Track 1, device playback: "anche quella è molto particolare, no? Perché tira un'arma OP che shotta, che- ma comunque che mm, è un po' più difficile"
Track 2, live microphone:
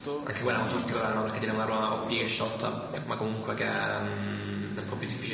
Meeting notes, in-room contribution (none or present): present